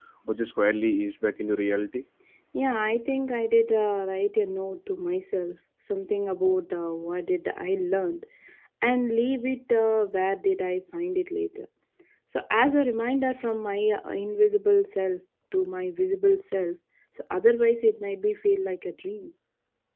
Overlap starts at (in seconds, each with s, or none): none